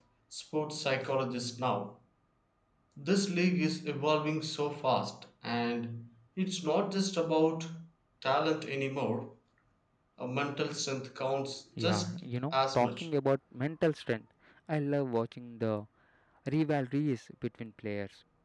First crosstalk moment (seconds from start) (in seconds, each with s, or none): 11.8 s